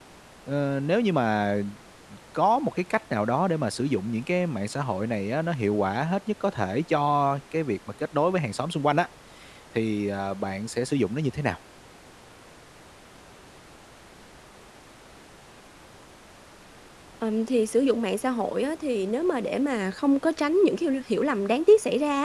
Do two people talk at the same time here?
No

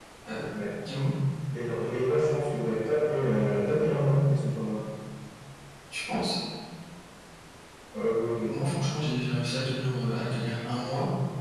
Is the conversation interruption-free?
Yes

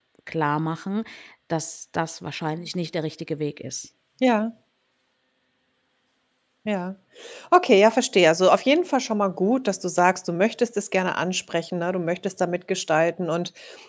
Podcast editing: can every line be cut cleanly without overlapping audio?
Yes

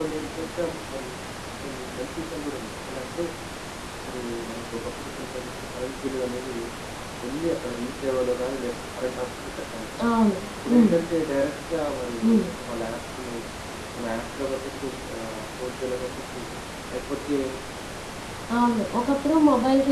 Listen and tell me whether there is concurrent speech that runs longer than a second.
No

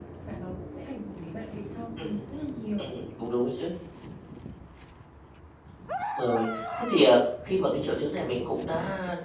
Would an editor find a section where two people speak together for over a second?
No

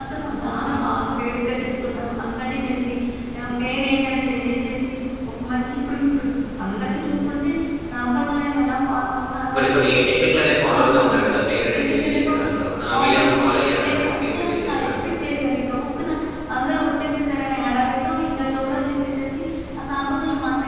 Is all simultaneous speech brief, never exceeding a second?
No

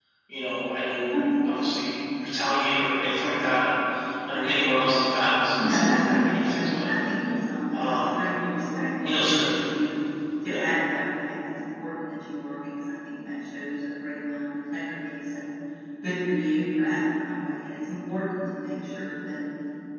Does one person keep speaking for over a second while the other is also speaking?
Yes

